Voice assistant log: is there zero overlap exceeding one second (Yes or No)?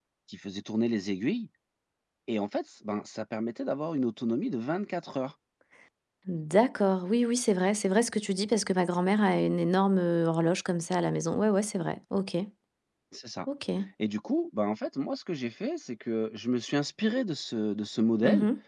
Yes